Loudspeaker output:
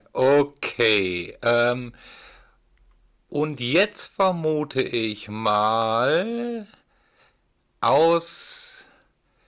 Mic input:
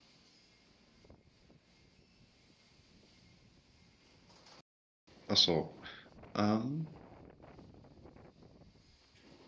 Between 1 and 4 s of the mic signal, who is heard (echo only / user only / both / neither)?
neither